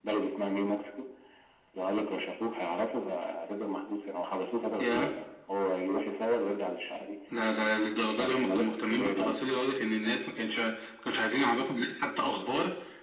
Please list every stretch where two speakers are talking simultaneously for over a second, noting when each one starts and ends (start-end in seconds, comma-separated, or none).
8.2-9.6